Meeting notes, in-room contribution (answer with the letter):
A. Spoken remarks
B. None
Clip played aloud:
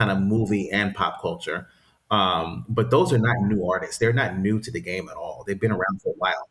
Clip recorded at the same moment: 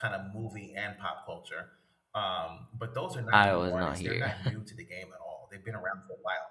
A